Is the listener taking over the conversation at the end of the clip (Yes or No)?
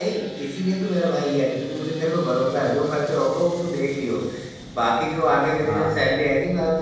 No